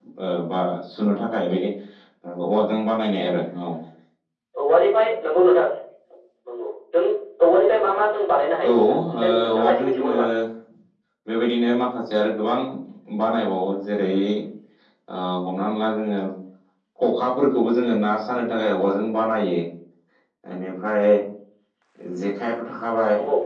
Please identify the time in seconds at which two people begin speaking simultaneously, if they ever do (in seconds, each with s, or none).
8.6 s